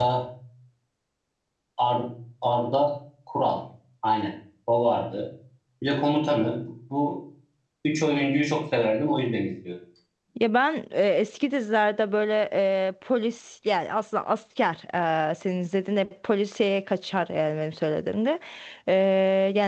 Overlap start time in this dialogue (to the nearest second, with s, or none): none